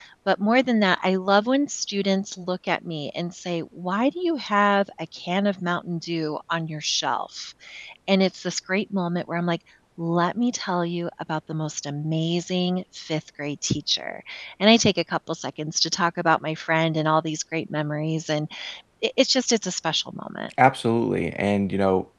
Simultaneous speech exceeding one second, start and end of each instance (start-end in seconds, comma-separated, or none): none